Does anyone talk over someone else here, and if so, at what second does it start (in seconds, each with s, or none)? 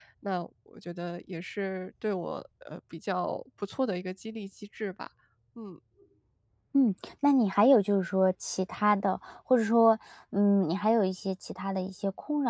none